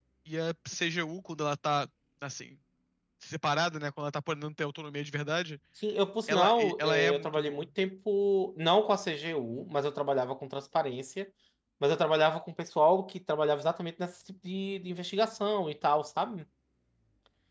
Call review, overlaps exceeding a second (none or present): present